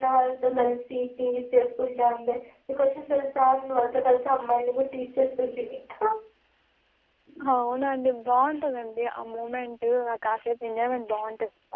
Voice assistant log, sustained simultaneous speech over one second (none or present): none